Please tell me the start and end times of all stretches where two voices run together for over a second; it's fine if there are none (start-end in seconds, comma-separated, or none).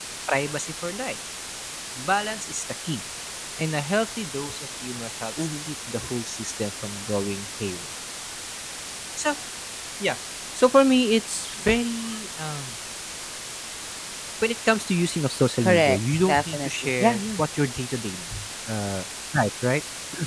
15.6-17.4